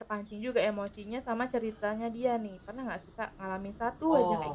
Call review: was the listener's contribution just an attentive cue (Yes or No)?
No